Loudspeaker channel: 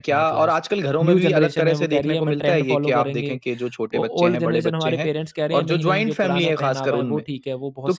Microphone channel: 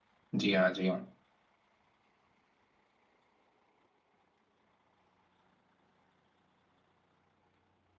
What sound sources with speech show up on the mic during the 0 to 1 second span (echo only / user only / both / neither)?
user only